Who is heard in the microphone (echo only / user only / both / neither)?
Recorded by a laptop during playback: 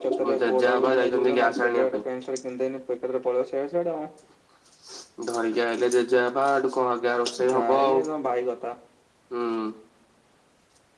echo only